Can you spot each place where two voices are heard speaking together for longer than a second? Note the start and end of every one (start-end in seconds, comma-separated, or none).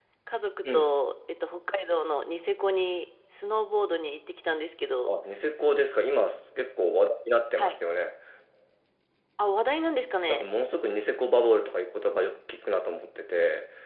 none